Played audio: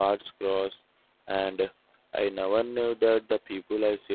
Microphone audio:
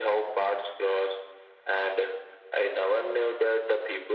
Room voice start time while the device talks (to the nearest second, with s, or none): none